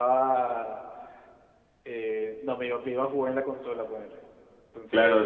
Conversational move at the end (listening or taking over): taking over